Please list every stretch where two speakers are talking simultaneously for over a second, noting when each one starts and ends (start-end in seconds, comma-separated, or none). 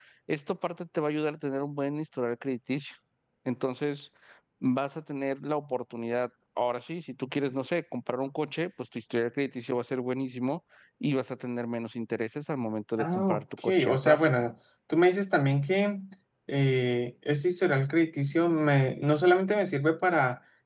13.0-14.3